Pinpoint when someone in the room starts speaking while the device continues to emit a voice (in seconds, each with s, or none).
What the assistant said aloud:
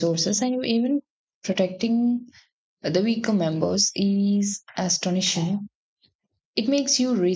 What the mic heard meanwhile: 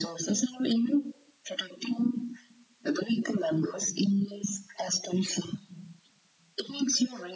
none